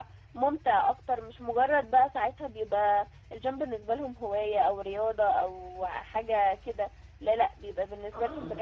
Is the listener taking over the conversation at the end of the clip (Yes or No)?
No